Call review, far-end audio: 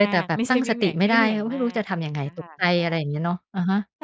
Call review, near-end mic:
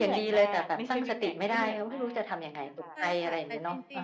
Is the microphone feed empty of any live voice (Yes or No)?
No